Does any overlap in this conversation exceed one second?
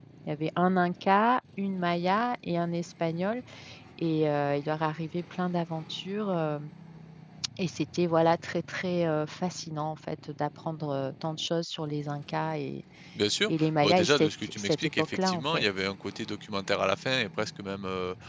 Yes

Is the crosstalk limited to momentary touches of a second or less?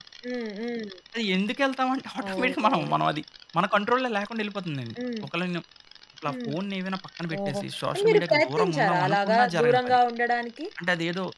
No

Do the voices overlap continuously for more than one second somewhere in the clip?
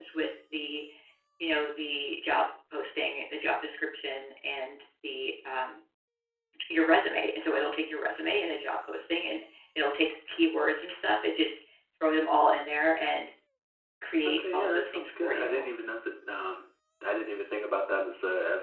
Yes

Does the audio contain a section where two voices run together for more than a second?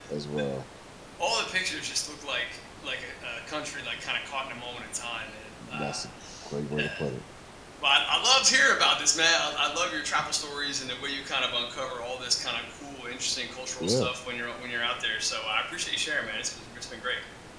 No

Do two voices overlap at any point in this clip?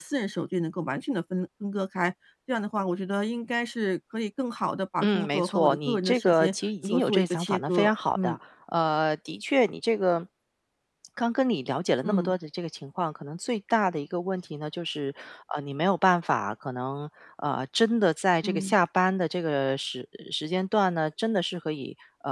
Yes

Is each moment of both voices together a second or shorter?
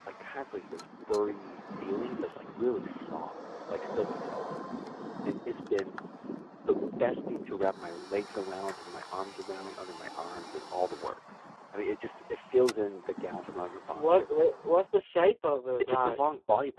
Yes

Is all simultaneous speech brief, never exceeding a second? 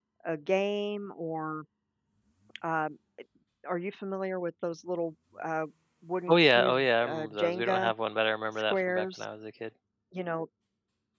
No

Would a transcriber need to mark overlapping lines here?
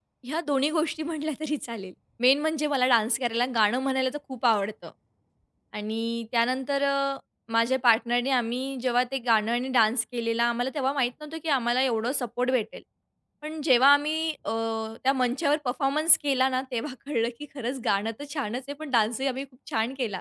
No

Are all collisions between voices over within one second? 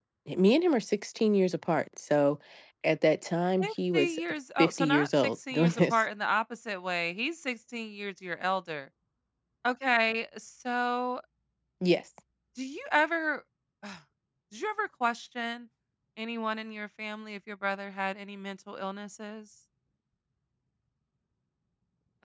No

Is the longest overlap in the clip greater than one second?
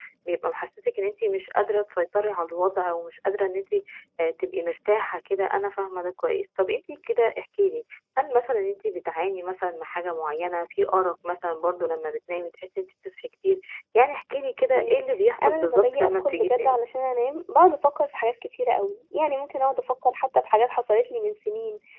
Yes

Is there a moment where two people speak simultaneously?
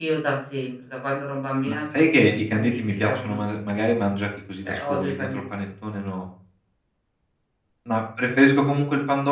Yes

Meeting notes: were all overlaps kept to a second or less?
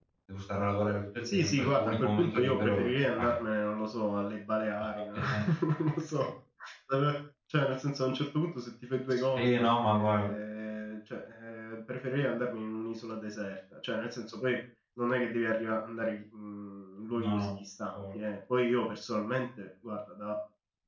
No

